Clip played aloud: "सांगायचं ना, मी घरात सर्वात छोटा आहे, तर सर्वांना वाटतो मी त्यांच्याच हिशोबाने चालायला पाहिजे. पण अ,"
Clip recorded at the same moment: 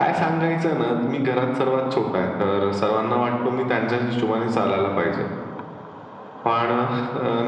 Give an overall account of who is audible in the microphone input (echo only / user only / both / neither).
echo only